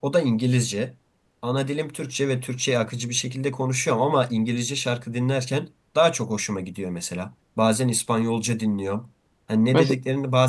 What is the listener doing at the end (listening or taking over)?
listening